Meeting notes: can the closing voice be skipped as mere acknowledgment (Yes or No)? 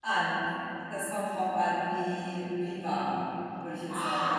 No